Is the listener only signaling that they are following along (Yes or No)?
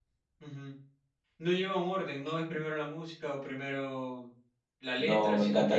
No